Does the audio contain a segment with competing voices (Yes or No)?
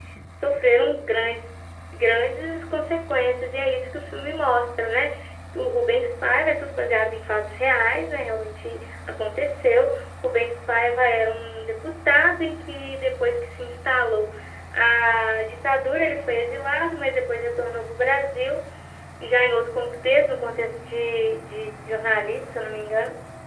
No